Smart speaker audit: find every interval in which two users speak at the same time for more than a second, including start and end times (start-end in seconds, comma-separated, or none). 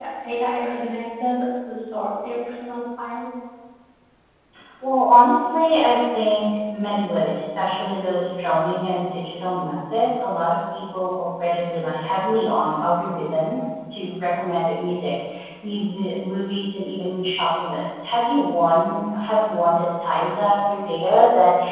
none